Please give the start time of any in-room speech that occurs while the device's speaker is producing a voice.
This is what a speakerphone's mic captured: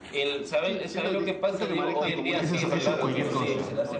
2.0 s

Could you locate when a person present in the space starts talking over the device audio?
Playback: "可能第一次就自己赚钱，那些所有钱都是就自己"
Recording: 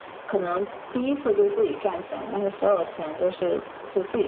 none

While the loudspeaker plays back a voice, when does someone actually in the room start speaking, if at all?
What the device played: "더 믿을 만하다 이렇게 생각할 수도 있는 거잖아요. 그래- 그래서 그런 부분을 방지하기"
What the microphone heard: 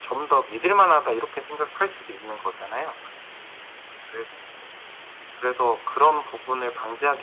none

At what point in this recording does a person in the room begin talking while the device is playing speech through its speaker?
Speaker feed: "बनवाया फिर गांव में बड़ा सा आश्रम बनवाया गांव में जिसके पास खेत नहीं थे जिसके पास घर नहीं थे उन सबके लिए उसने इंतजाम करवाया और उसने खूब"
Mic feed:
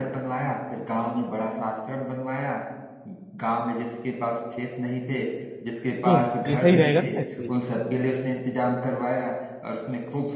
6.0 s

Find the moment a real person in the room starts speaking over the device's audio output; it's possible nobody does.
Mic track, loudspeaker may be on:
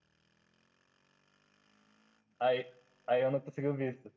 2.4 s

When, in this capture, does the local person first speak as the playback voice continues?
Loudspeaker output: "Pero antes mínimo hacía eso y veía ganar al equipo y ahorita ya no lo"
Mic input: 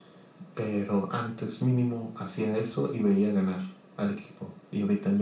none

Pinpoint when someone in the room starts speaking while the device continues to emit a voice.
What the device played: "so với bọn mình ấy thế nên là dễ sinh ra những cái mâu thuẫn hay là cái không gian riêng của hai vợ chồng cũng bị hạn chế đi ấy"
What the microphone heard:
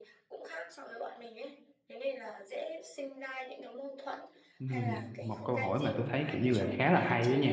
4.6 s

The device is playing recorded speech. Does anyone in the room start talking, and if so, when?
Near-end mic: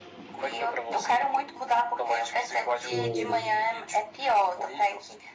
2.9 s

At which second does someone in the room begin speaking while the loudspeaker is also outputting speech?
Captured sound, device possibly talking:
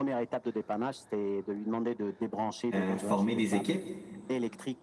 2.7 s

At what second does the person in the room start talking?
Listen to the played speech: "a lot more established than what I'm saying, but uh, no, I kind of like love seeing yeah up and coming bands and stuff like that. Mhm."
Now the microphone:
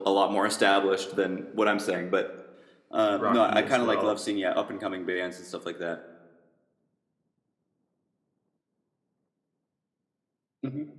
3.2 s

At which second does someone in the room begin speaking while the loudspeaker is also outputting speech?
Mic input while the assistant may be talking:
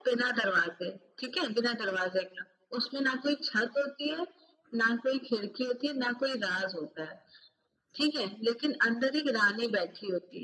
none

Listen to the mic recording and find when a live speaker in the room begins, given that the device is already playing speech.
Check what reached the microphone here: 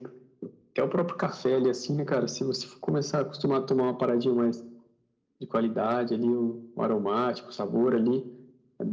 none

